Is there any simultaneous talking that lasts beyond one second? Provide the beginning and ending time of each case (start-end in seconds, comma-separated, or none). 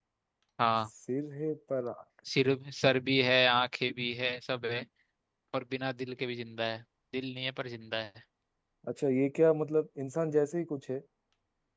none